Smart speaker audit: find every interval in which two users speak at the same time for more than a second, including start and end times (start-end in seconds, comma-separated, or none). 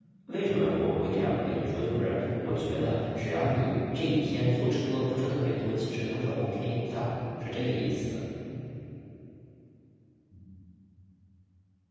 none